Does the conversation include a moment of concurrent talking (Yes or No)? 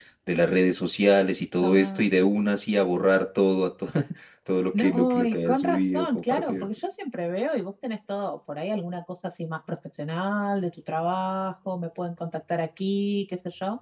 Yes